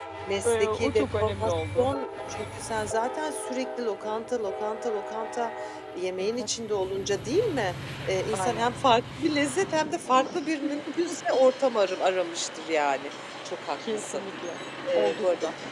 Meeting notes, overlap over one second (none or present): present